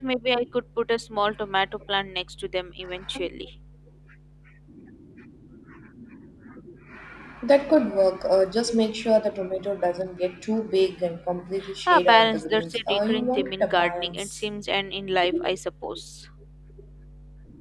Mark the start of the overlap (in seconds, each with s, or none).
11.9 s